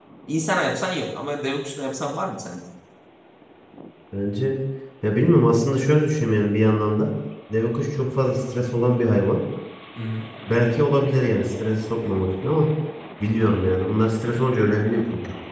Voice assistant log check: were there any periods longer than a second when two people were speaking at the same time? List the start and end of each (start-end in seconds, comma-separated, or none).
none